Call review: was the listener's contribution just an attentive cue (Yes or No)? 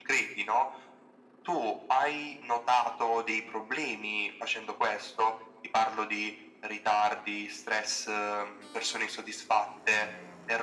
Yes